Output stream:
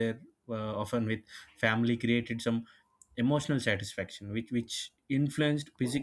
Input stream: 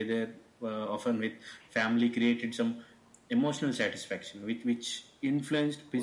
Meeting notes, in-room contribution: none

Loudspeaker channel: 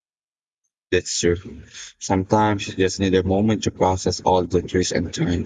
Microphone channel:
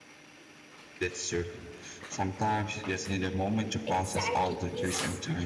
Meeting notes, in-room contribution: present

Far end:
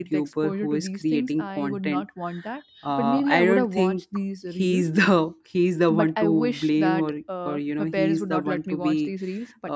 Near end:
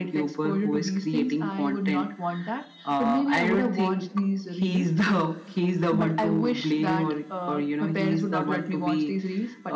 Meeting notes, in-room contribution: none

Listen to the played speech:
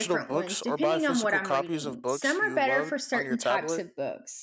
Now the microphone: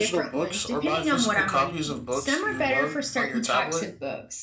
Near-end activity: none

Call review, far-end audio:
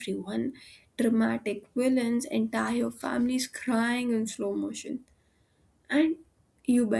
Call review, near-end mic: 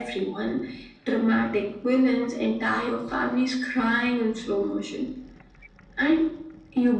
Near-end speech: none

